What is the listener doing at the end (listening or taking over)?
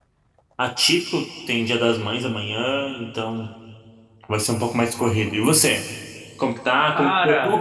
listening